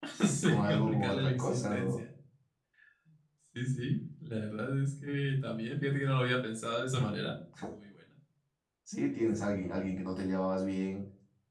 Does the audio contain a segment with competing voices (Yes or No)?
Yes